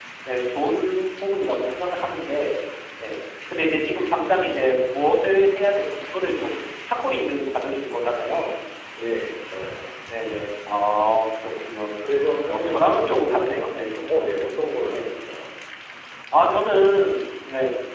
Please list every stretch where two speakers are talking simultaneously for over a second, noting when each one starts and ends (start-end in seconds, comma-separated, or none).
12.5-14.0